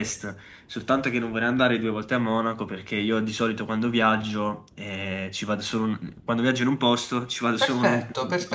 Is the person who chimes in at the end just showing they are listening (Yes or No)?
No